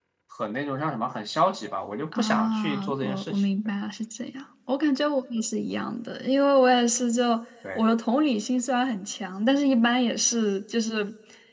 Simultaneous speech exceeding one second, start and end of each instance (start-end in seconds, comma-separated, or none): 2.1-3.4